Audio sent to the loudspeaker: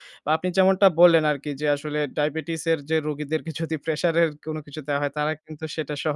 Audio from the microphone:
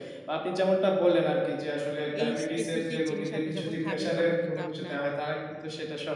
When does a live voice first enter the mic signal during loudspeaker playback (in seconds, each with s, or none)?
2.2 s